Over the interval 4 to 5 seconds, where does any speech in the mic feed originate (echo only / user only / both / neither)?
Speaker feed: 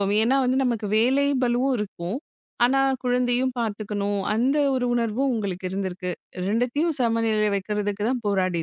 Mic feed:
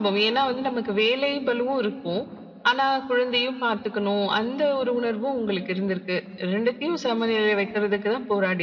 echo only